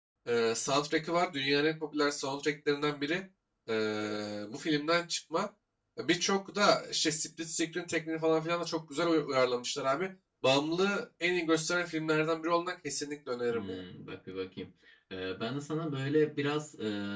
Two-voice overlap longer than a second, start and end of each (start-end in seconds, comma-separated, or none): none